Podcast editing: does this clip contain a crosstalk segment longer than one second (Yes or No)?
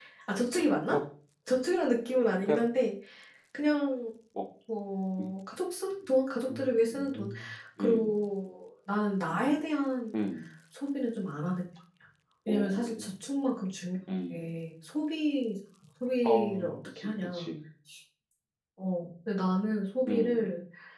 Yes